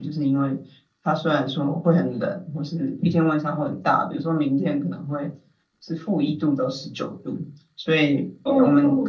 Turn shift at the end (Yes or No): No